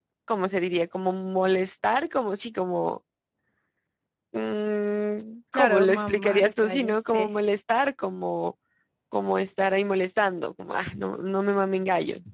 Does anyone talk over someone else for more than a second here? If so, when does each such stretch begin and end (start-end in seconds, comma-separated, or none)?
5.5-7.3